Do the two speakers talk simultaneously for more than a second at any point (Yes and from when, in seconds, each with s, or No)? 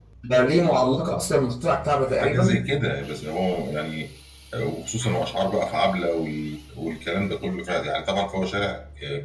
No